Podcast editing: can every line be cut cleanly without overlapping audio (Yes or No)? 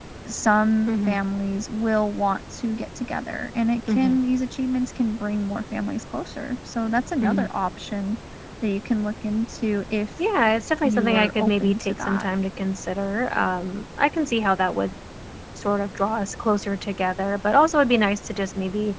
No